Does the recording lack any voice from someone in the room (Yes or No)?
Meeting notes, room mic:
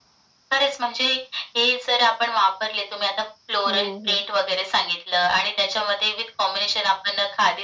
No